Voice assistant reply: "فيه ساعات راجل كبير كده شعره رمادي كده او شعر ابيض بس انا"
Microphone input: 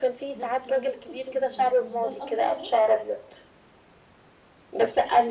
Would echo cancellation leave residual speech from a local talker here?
Yes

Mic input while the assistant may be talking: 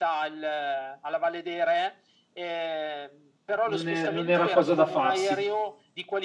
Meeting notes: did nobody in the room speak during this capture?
No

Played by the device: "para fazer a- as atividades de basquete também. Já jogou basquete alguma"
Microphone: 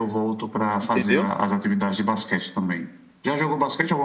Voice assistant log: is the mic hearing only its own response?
No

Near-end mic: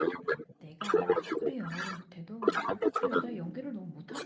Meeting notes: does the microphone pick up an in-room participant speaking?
Yes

